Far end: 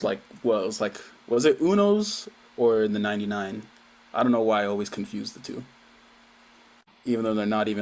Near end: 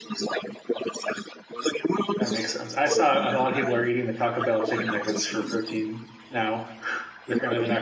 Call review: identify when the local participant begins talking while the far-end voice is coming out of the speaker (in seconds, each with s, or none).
2.2 s